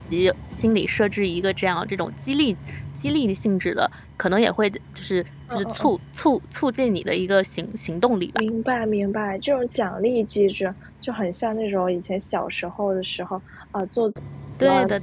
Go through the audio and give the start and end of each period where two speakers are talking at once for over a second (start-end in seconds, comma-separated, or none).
none